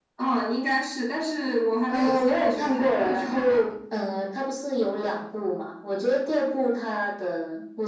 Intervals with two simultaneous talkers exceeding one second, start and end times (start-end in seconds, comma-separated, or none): 1.9-3.7